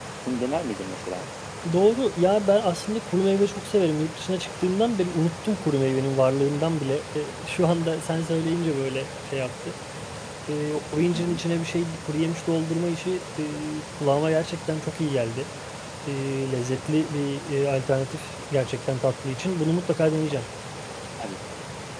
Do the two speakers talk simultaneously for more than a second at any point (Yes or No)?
No